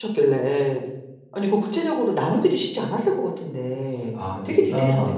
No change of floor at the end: No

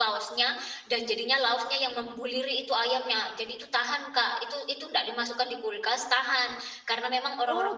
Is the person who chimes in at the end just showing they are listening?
Yes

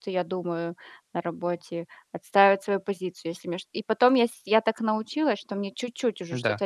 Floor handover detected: No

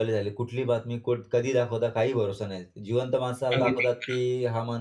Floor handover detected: No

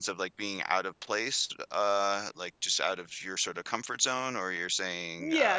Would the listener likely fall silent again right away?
No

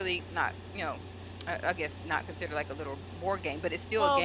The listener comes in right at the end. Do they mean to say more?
Yes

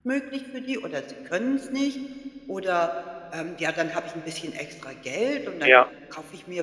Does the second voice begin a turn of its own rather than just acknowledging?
No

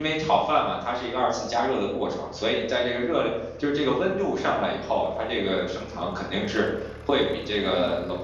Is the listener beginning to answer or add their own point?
No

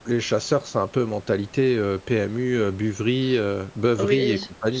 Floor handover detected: Yes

